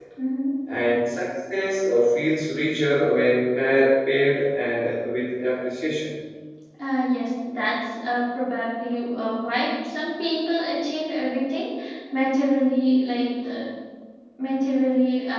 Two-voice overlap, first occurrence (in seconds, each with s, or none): none